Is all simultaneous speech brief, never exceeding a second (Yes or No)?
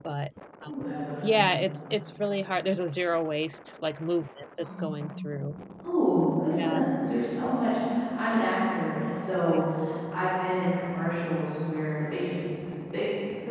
Yes